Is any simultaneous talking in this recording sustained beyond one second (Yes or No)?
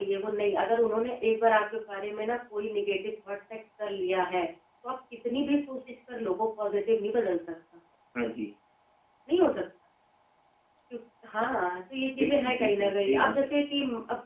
Yes